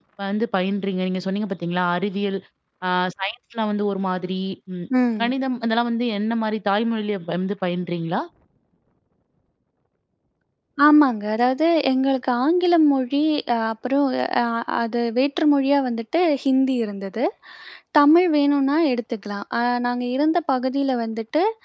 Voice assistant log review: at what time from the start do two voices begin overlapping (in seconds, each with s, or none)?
none